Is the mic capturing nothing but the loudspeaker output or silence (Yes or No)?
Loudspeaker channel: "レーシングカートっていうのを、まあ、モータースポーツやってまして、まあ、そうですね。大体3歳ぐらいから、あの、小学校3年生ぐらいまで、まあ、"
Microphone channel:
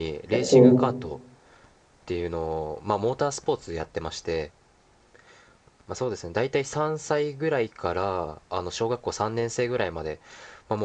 No